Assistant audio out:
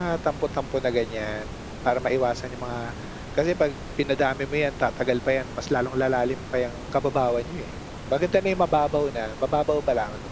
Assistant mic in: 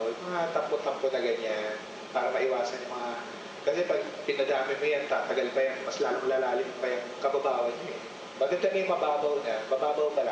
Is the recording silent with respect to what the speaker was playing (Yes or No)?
No